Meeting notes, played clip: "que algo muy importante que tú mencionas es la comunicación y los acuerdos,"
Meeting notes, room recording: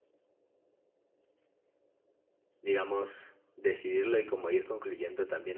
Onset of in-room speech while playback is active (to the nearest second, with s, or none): 3 s